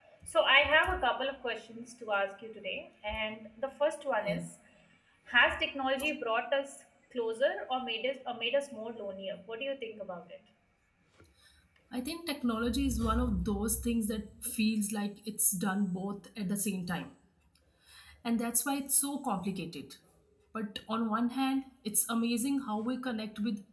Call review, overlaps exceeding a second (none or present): none